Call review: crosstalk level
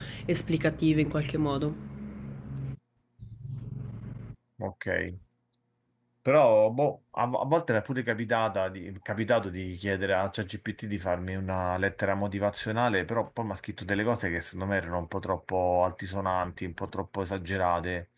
none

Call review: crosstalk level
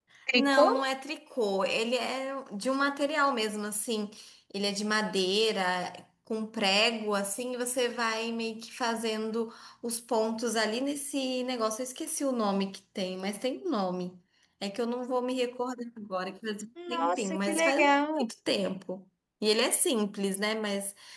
present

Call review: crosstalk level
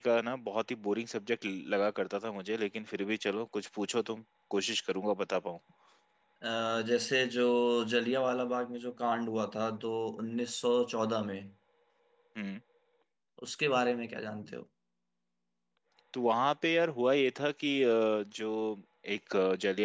none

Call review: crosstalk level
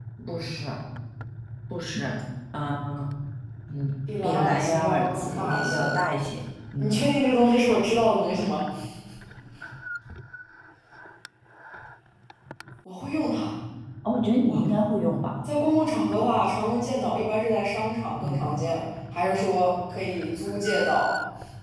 present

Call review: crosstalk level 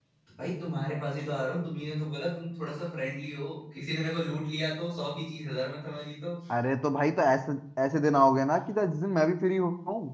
none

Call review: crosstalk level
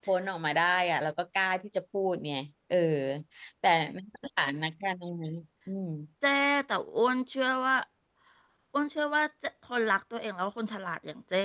none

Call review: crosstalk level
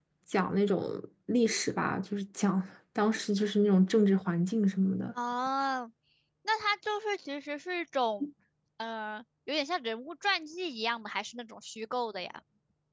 none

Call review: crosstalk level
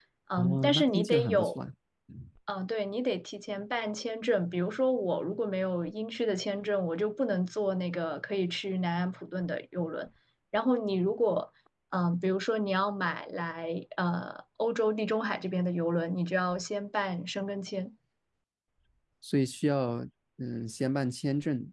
present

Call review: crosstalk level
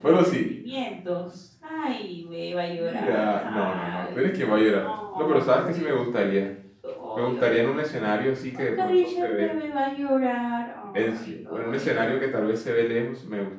present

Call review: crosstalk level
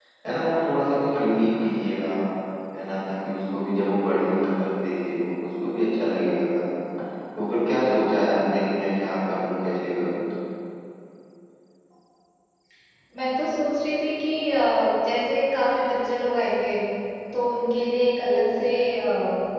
none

